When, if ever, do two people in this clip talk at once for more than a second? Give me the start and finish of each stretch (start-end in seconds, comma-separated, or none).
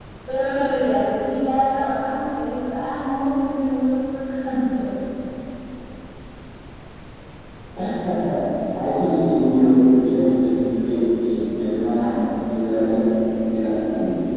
none